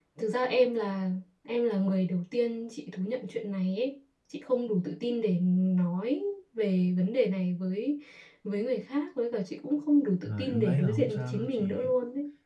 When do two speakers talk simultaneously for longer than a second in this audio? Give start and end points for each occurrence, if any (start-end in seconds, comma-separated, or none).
10.2-11.9